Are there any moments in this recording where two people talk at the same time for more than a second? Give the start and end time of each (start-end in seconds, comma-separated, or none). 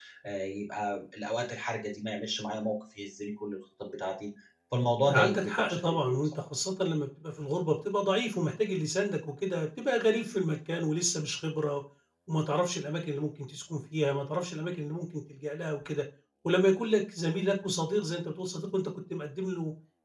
5.0-6.4